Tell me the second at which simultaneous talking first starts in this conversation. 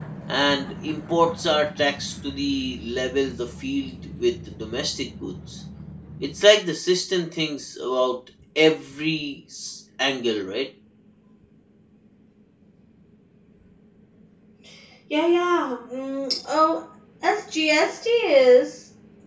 none

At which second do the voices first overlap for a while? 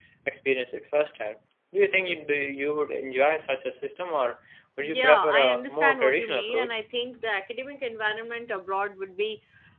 4.8 s

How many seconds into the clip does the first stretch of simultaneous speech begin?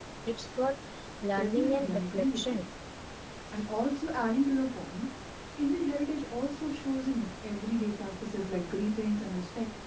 1.3 s

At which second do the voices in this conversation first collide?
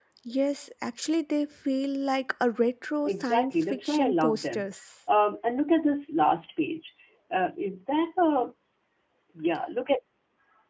3.0 s

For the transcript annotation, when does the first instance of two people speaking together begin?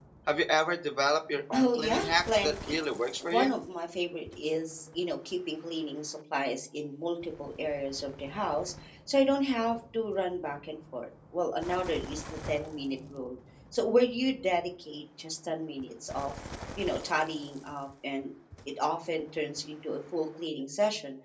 1.5 s

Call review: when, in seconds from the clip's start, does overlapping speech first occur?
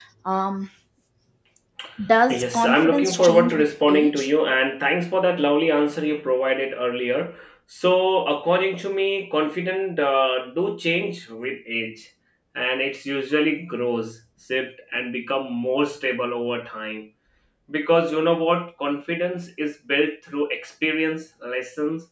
2.3 s

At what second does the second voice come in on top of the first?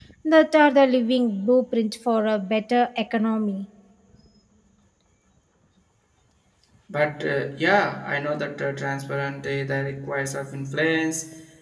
none

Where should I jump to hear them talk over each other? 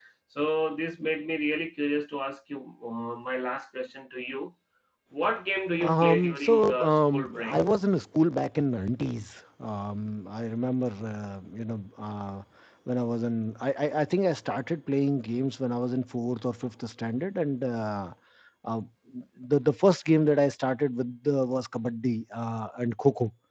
5.8 s

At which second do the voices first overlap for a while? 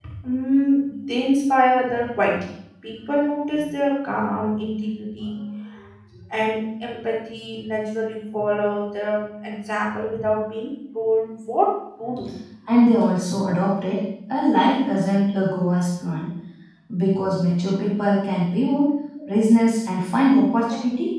none

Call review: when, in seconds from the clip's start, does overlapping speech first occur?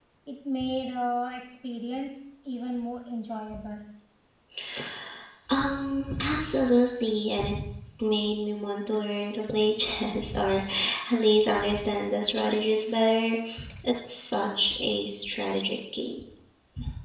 none

